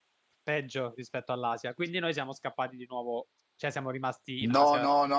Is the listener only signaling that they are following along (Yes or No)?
No